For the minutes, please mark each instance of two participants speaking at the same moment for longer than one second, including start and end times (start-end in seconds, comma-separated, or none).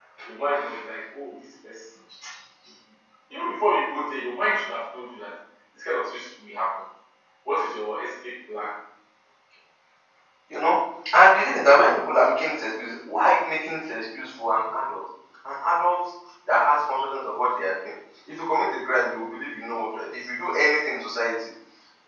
none